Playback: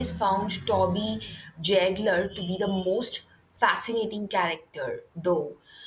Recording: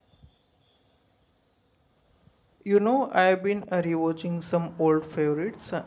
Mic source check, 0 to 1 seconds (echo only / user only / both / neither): neither